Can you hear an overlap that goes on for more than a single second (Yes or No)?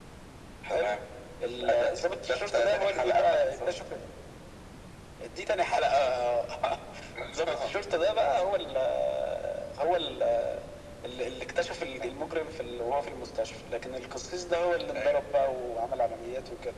Yes